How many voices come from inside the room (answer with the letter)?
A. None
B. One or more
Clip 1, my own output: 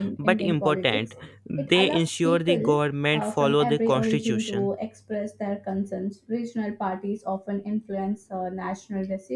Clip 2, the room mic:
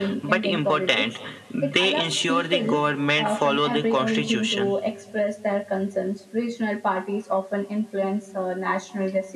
A